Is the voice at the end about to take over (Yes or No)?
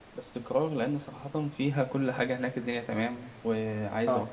No